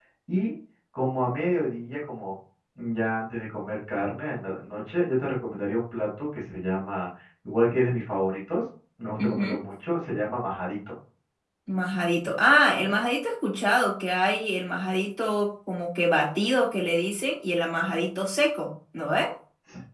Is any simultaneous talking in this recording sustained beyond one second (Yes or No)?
No